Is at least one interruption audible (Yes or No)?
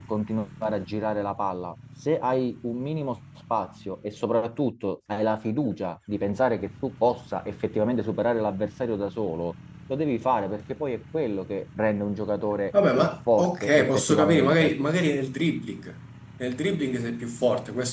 Yes